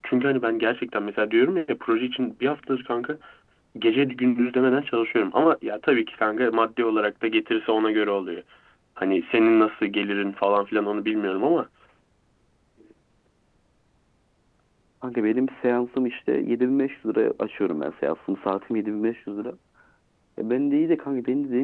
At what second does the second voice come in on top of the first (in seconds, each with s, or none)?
none